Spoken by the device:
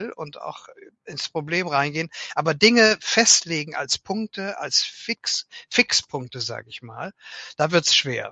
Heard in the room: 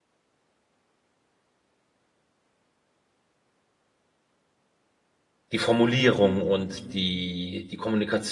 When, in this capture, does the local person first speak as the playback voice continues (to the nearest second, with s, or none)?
6 s